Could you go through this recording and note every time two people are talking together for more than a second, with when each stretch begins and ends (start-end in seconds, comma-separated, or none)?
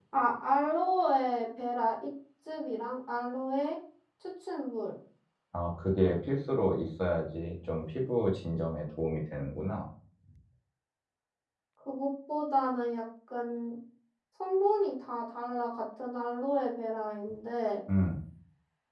none